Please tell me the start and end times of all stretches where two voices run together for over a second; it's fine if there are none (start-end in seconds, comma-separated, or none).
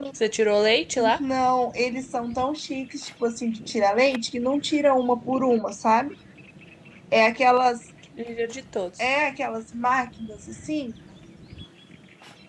none